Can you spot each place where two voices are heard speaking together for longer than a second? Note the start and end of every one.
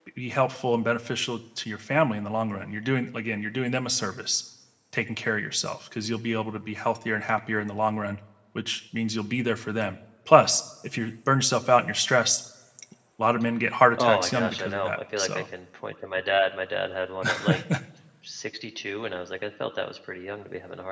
14.0-15.4

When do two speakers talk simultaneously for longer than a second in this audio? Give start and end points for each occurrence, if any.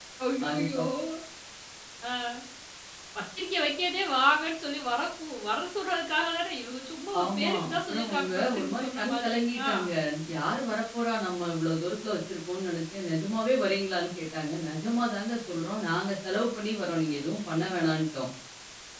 7.2-9.7

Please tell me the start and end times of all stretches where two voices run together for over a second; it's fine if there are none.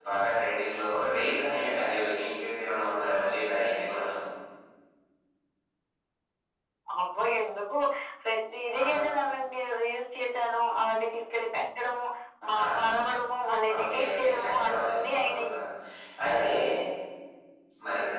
13.8-15.6

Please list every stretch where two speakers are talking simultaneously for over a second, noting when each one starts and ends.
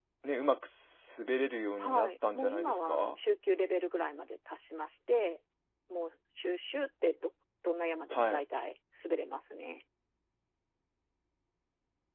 1.8-3.0

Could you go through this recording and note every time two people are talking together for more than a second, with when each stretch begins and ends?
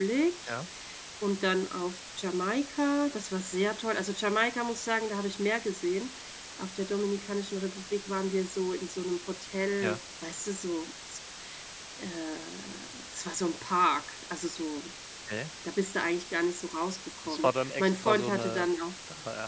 17.3-18.7

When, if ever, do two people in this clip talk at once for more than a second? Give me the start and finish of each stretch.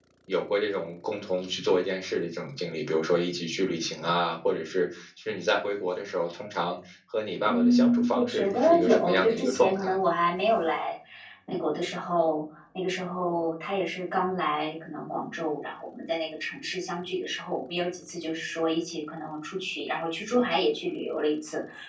7.5-10.0

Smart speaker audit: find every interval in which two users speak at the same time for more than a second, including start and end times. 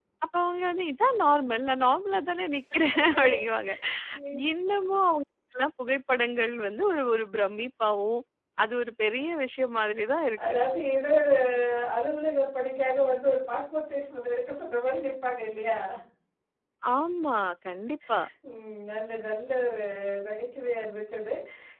none

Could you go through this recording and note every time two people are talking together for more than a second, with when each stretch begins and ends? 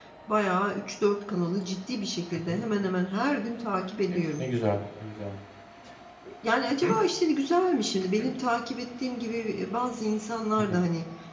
none

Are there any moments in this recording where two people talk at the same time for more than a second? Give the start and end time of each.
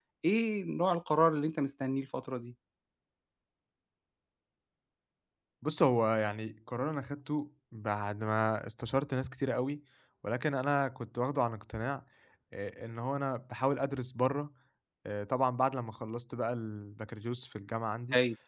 none

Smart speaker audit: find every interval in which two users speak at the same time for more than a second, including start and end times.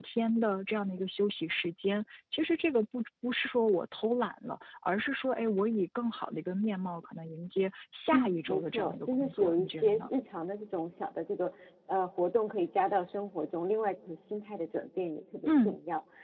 8.1-10.0

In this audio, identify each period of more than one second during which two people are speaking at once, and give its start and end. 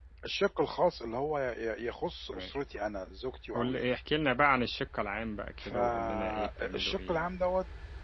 5.6-7.3

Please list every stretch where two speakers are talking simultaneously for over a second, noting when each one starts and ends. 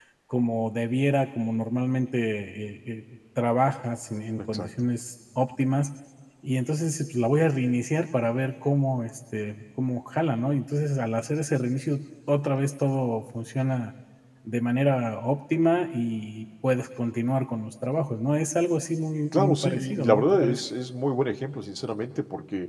19.3-20.6

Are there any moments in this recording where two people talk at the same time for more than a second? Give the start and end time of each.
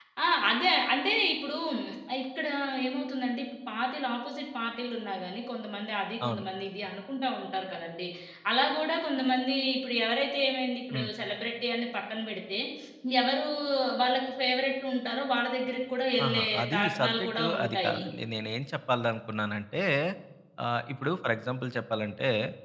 16.2-18.0

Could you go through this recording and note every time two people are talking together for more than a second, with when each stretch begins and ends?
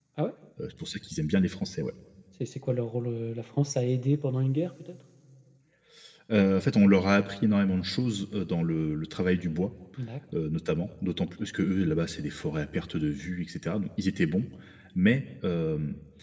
none

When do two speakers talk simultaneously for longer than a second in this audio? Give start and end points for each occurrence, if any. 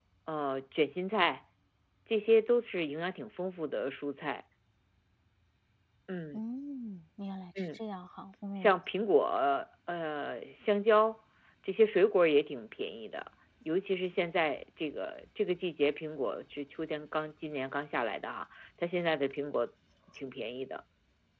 none

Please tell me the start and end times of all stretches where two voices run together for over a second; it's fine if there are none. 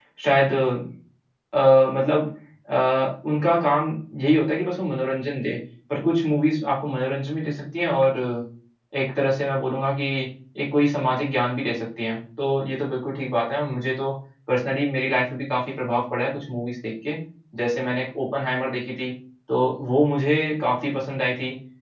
none

